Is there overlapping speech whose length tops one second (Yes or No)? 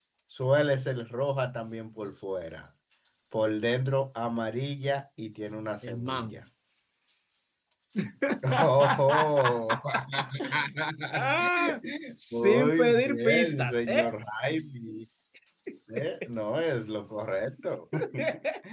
Yes